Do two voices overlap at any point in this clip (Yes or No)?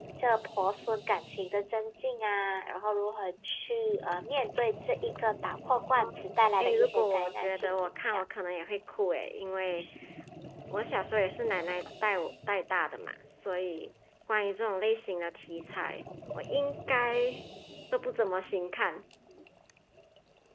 Yes